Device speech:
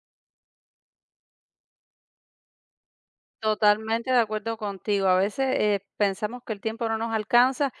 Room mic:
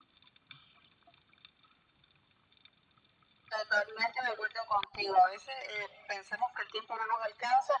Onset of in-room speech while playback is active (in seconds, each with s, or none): none